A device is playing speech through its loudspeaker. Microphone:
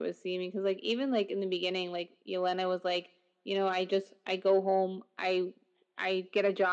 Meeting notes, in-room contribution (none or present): none